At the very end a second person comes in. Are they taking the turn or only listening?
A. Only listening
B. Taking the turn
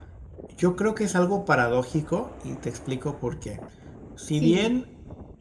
A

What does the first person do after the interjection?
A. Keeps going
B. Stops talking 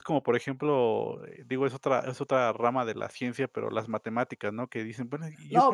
A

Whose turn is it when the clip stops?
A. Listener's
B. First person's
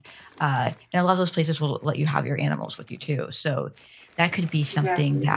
B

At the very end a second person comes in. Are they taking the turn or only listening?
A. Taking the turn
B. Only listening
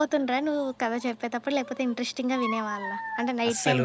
A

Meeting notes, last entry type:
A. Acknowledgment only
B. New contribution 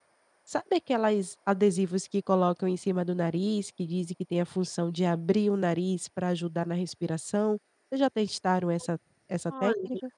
B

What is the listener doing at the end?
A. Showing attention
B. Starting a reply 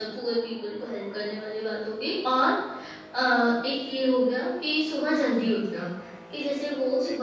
A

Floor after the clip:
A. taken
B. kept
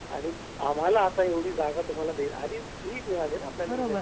A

